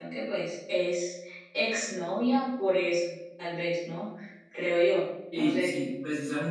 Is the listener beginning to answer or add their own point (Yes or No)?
Yes